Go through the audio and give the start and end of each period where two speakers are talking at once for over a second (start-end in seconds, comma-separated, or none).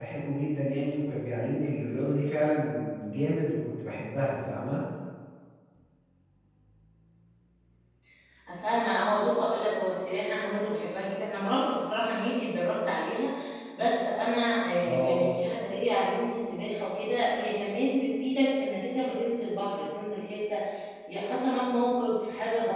none